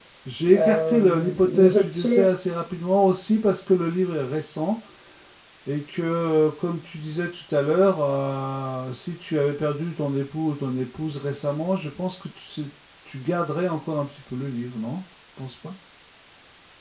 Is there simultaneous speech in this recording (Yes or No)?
Yes